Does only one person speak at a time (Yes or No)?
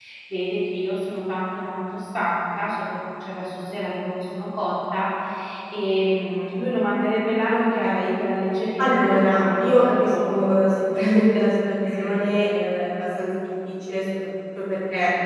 No